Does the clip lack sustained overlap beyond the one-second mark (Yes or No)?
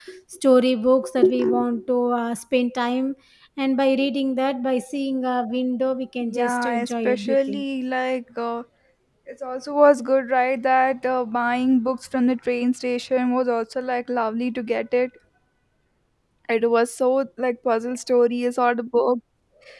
No